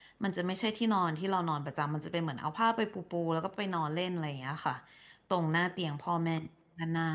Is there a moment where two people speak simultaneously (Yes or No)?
No